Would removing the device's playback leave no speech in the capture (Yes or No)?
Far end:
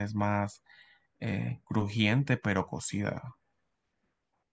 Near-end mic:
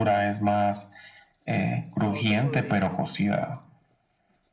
No